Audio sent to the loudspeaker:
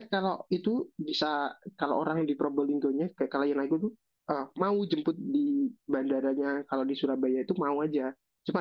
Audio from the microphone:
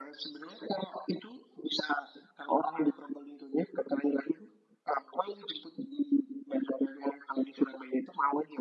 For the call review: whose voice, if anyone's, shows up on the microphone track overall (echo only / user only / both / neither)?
echo only